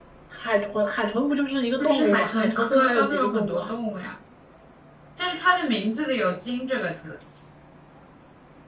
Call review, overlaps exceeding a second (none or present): present